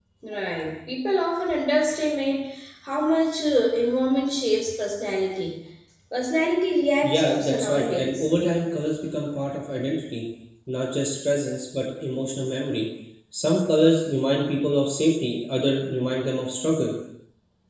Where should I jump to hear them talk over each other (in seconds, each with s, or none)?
7.0 s